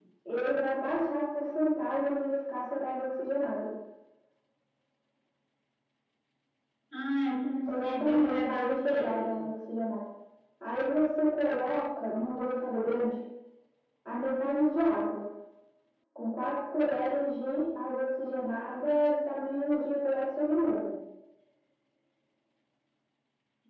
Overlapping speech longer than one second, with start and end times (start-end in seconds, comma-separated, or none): 7.7-9.3